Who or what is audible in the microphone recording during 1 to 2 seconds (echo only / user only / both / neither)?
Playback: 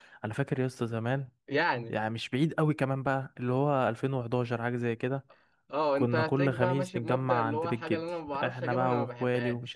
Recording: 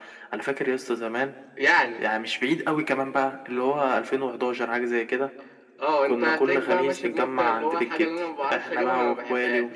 echo only